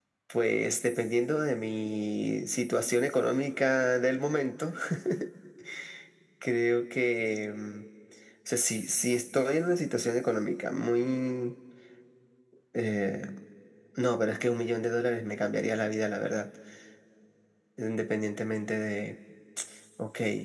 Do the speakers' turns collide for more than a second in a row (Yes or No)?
No